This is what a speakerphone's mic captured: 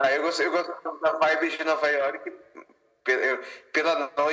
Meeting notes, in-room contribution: none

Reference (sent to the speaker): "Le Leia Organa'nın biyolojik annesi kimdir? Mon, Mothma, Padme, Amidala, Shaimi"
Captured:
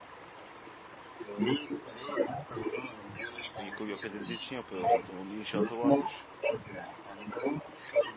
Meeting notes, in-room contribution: present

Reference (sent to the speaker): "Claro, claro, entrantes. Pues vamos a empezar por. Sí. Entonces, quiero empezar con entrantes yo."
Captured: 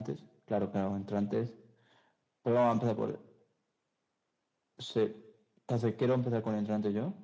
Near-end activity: none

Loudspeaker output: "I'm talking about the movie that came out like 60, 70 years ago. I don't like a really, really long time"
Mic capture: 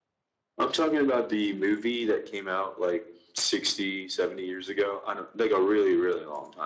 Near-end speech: none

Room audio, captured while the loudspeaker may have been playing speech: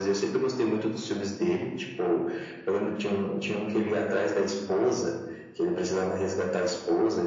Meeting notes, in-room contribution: none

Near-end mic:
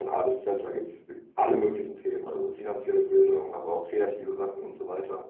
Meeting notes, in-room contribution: none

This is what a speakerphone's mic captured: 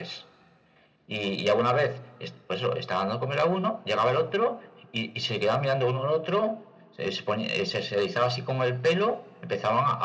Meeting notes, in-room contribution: none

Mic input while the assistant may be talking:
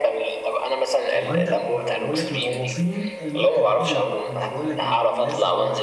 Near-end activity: present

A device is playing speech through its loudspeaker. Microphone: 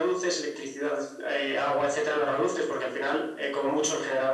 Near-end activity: none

